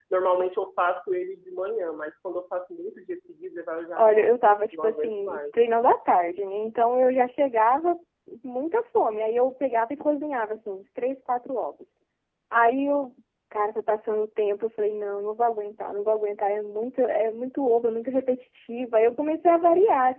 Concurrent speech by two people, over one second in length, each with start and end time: 4.0-5.4

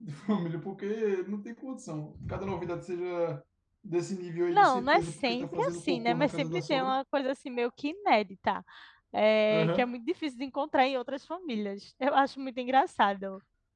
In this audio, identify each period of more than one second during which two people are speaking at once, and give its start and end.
4.5-7.0

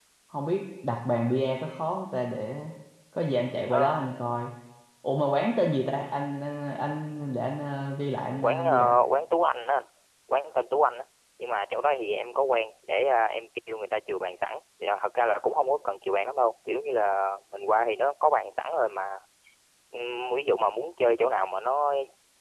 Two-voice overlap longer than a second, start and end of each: none

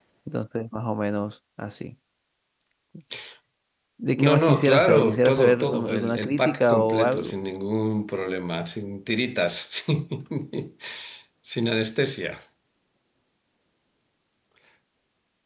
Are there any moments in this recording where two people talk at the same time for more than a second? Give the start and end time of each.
4.1-7.3

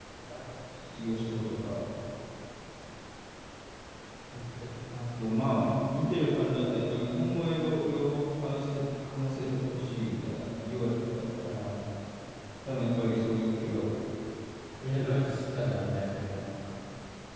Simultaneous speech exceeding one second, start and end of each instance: none

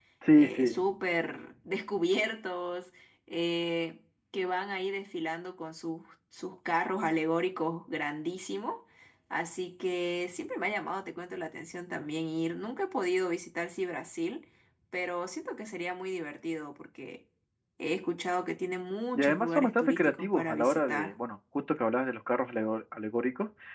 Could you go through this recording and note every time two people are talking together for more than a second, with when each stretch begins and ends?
19.2-21.2

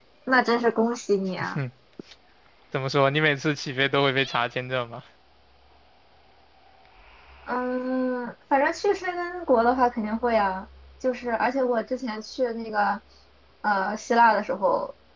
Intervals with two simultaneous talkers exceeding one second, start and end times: none

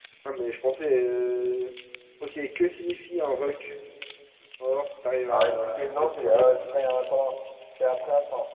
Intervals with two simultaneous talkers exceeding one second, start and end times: 5.3-6.5

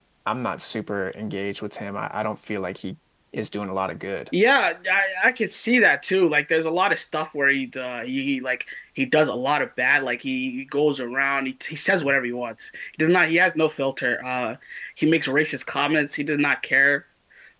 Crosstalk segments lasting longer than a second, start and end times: none

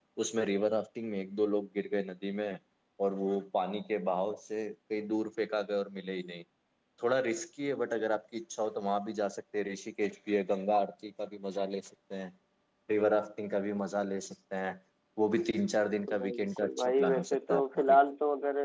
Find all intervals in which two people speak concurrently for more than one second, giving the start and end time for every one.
16.1-18.0

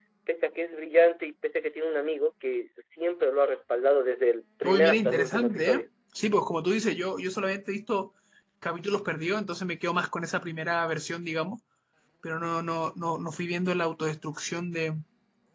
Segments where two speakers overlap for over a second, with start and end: 4.6-5.9

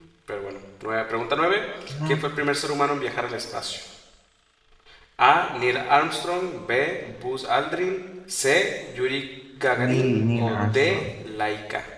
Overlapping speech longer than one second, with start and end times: 9.8-11.1

